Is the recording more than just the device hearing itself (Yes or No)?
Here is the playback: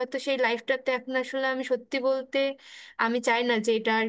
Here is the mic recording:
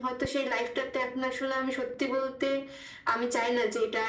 No